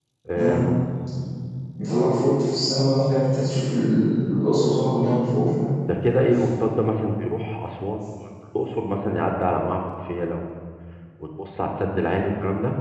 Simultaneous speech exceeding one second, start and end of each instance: none

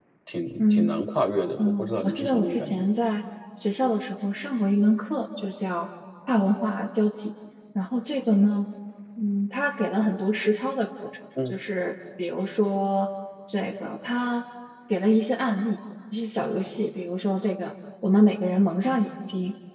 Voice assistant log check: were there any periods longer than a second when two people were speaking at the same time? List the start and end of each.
1.6-2.8

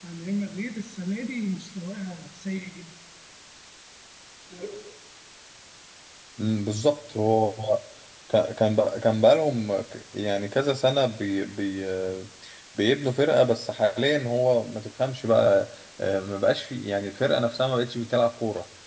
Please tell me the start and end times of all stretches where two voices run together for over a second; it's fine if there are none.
none

